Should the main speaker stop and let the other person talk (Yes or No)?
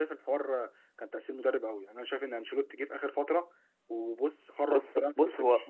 Yes